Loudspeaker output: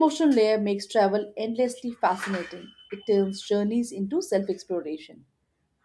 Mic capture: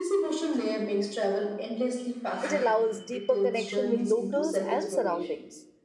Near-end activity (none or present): present